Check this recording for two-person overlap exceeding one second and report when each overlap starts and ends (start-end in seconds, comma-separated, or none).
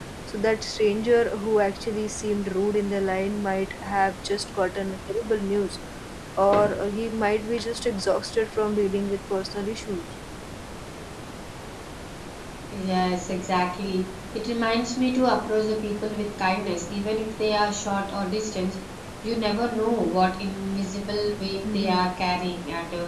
none